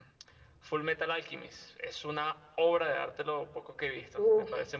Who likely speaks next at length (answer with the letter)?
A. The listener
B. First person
A